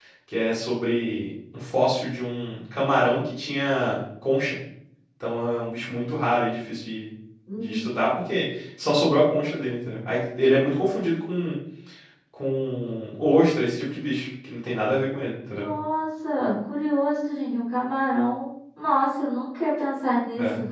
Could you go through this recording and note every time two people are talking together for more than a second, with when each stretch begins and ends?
none

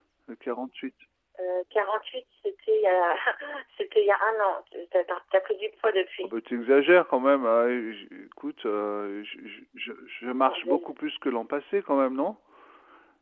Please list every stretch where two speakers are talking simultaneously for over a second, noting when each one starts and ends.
none

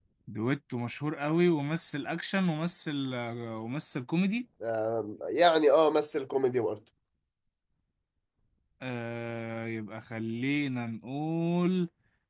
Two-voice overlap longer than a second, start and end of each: none

